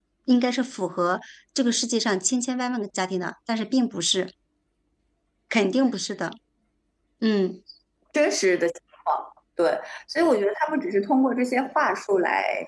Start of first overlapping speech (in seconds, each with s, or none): none